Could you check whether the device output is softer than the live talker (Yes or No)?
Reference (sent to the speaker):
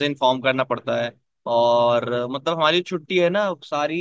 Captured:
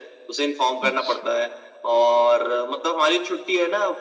No